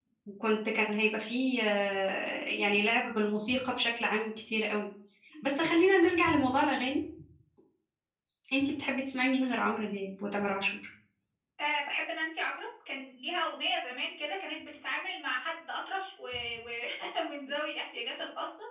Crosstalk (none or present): none